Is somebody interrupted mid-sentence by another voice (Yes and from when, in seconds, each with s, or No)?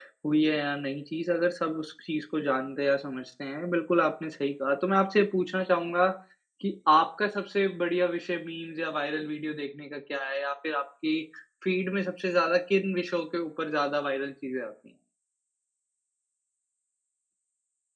No